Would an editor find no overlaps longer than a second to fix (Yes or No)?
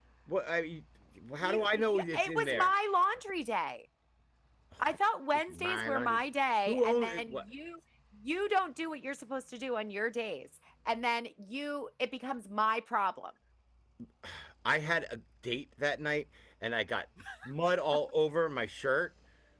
No